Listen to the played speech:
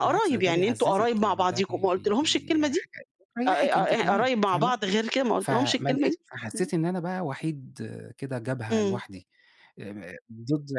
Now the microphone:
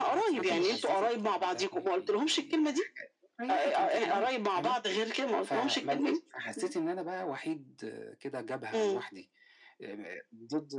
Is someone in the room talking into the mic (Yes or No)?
Yes